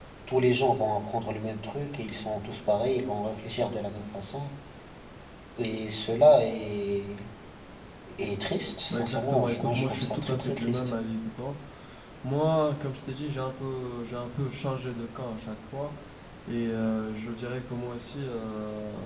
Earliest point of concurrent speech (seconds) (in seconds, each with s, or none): 8.9 s